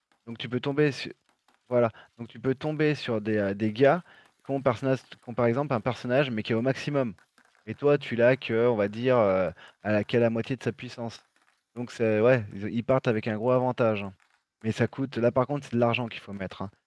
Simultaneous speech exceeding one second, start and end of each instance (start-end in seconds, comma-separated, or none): none